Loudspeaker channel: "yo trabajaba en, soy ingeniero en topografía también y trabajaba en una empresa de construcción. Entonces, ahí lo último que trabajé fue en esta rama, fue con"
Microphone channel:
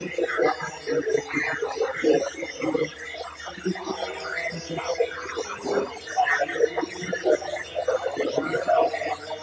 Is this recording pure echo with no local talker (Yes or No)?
Yes